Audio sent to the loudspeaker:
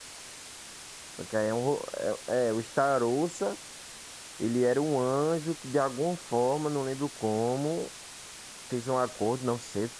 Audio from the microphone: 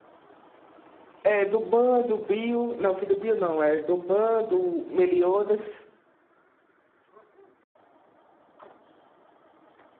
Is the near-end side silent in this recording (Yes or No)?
No